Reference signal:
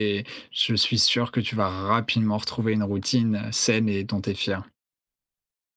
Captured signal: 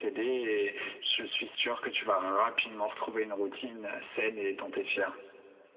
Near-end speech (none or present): none